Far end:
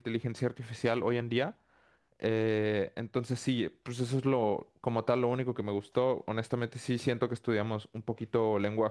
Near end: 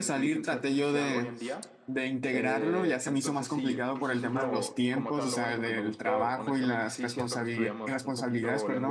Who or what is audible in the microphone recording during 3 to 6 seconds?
both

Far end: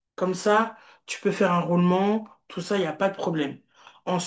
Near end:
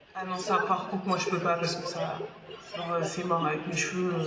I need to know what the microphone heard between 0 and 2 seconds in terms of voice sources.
both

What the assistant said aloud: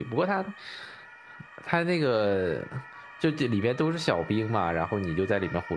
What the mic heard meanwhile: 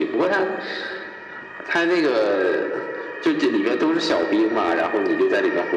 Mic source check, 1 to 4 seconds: echo only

